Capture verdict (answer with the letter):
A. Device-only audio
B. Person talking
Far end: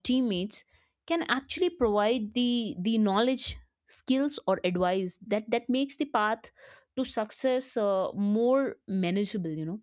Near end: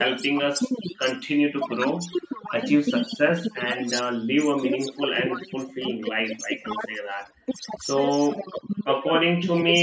B